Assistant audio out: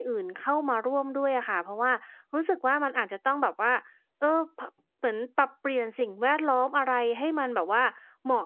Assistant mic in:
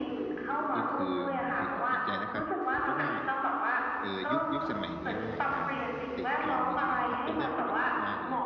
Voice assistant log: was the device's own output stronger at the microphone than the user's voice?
Yes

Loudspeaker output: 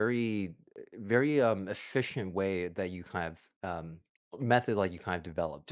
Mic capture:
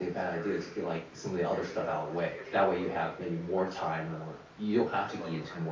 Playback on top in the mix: No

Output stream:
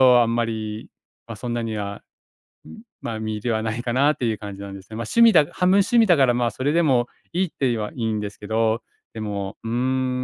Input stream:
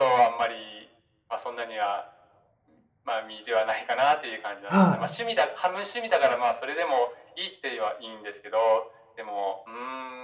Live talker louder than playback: Yes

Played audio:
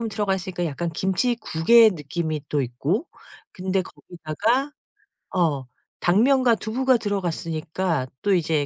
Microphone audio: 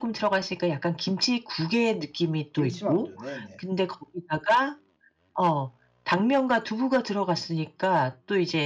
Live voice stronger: No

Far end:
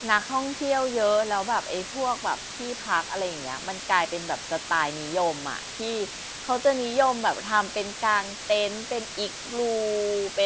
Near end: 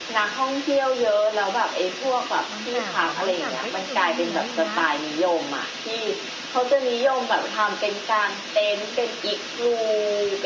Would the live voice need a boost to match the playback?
Yes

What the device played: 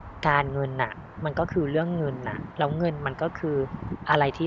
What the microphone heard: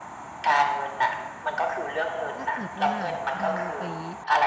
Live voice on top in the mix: No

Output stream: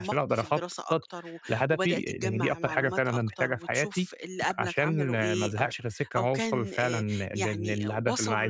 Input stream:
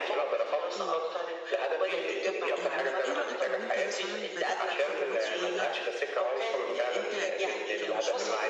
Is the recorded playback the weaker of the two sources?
No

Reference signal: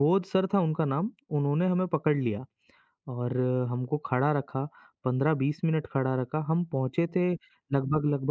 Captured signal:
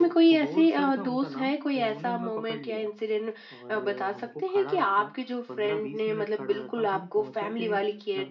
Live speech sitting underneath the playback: No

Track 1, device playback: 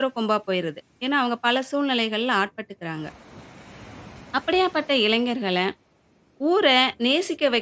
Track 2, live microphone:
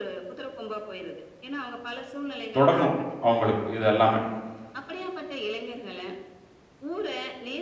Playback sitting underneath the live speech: Yes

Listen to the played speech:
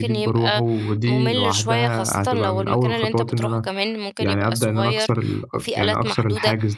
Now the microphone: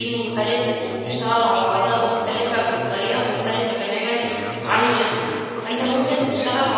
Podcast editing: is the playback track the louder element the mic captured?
No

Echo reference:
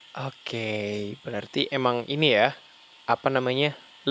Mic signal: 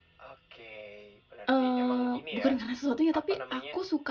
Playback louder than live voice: No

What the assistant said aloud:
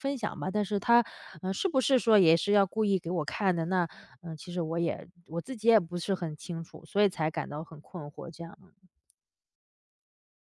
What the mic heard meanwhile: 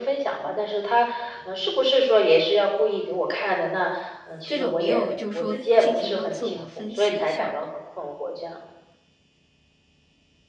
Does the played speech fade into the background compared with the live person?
No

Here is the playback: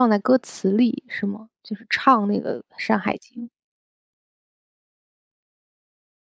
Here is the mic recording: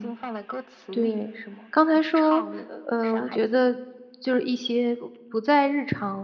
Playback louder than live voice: No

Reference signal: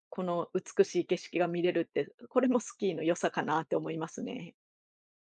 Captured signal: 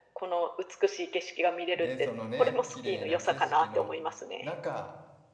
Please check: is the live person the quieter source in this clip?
Yes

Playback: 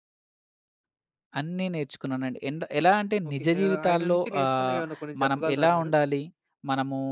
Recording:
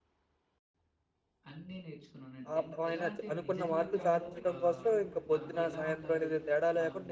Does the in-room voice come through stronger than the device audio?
Yes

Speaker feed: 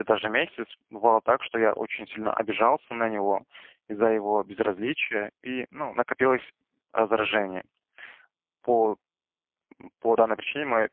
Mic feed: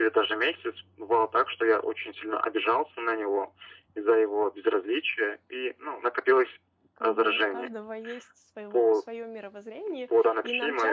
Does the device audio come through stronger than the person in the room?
Yes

